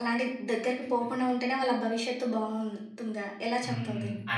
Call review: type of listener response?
taking over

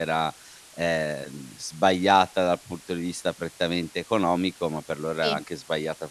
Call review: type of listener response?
listening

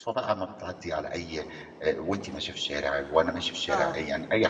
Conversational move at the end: taking over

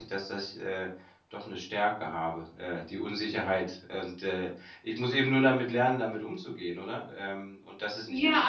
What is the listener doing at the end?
taking over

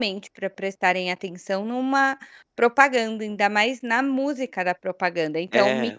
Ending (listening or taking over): listening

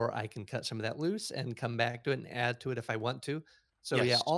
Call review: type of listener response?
listening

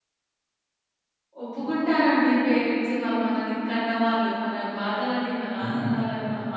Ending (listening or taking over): listening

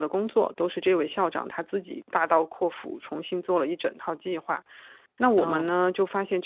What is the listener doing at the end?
listening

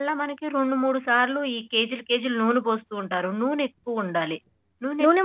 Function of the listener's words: taking over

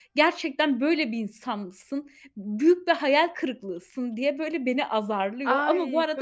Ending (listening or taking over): taking over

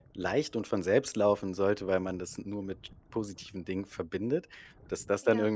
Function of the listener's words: listening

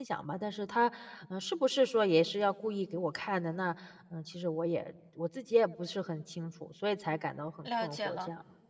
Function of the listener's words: taking over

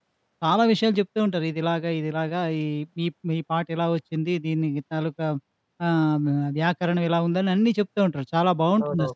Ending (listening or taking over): taking over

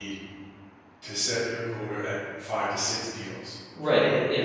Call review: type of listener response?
taking over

